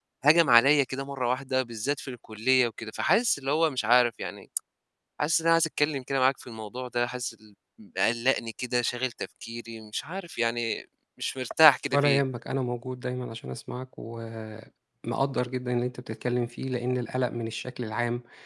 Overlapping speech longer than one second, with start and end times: none

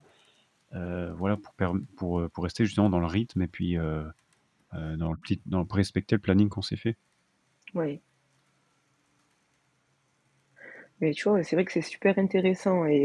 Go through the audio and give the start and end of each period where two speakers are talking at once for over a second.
none

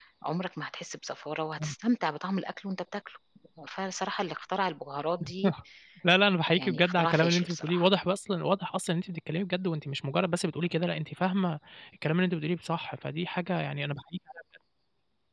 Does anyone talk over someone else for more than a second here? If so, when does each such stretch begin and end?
6.5-7.9

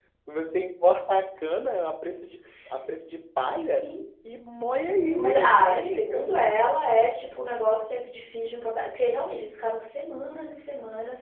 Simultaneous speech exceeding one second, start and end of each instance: 4.7-6.2

